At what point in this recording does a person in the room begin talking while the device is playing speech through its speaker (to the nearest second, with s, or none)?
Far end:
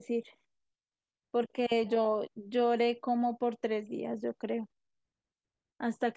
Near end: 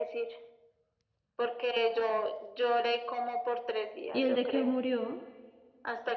4 s